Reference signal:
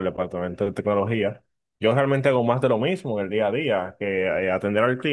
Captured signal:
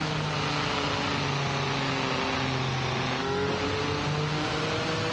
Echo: none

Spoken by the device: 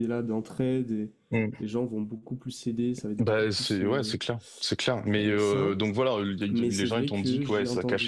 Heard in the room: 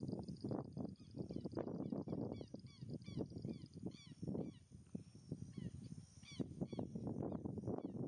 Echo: none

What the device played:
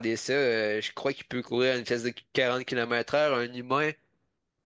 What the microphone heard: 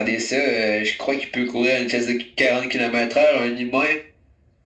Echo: present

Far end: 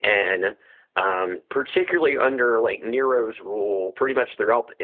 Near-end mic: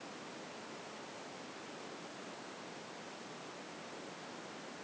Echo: none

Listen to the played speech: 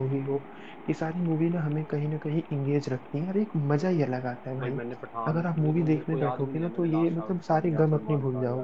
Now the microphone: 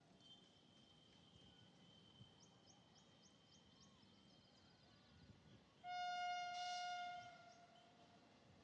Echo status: none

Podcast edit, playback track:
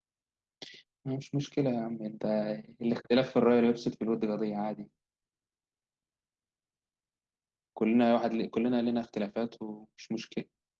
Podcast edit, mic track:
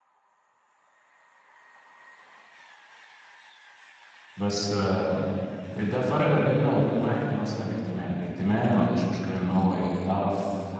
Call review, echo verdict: none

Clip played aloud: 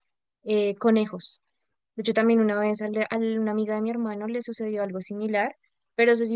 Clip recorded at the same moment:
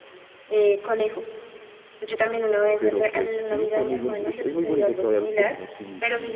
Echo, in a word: present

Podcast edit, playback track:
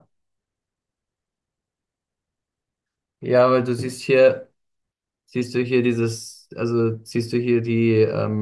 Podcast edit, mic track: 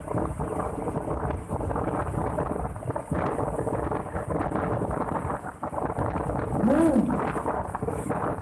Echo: none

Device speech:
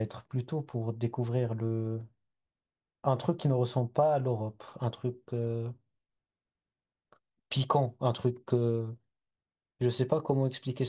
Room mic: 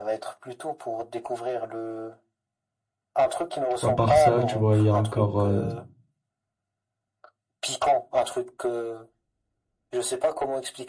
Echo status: present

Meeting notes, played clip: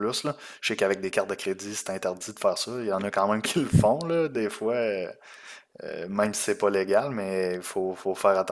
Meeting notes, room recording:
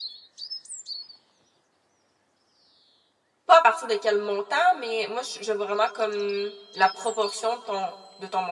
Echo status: none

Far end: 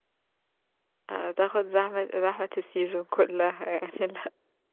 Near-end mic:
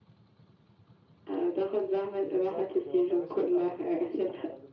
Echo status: present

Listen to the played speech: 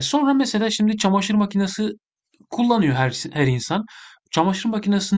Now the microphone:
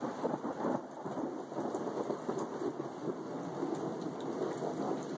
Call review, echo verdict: none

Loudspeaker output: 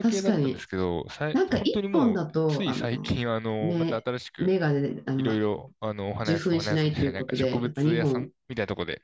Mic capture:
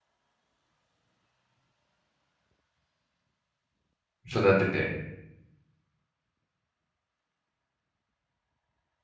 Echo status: none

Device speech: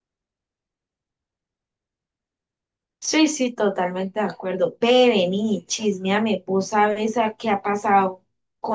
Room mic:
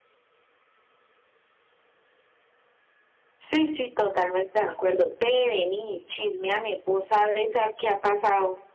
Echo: present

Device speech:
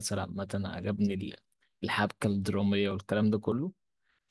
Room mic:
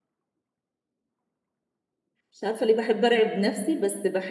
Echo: none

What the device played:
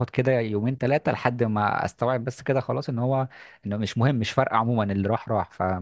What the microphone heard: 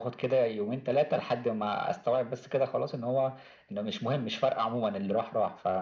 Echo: present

